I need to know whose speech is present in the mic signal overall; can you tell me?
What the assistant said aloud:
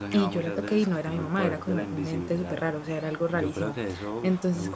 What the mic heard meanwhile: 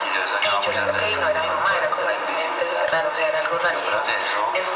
both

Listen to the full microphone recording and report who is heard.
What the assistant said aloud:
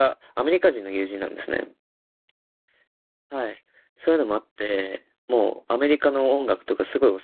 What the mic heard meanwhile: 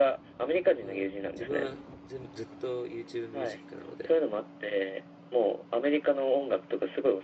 both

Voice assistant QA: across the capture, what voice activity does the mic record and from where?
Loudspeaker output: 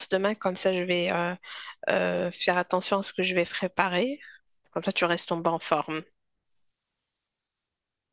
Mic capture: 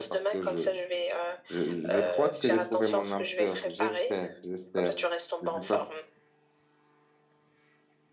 both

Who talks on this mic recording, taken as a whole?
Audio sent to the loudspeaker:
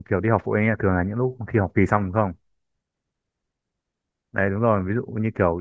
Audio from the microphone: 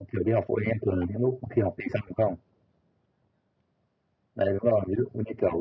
echo only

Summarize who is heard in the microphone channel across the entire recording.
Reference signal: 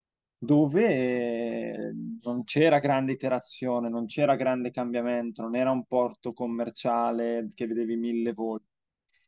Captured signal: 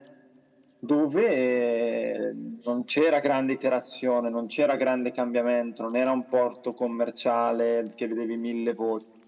echo only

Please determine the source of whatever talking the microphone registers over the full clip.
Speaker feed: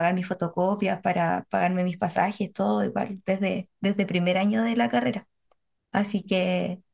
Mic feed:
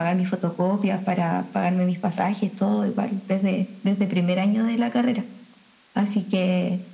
echo only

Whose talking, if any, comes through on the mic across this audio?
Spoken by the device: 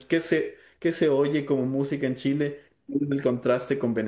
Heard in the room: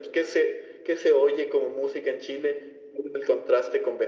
echo only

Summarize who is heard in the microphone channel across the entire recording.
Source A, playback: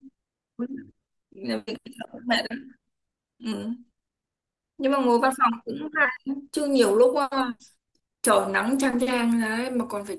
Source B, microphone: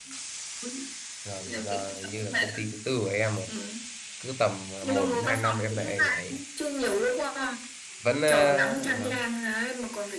both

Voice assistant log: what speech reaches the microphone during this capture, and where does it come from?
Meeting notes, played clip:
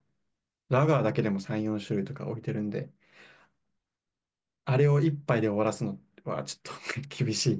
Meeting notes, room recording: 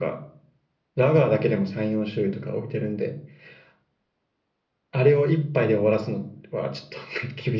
echo only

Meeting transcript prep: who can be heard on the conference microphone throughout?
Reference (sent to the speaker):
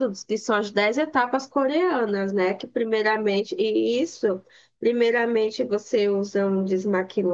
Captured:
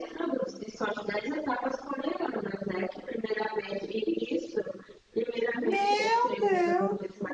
both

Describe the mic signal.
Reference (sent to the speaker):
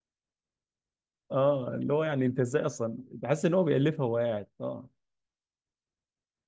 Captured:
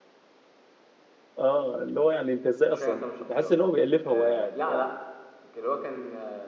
both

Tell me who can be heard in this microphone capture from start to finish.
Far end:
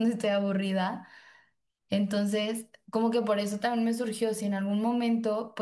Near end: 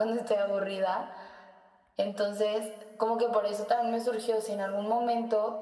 echo only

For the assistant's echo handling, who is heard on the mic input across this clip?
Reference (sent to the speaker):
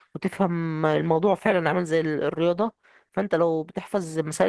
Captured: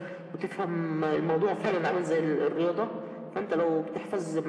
echo only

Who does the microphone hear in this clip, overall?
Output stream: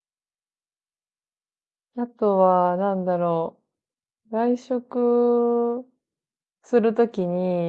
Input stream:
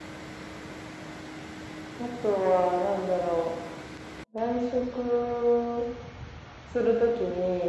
echo only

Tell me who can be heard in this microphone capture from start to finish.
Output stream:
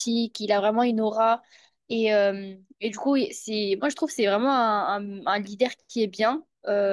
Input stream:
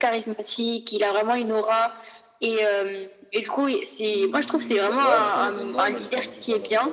both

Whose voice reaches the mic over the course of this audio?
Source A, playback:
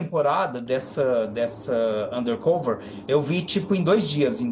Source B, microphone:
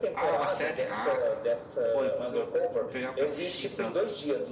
both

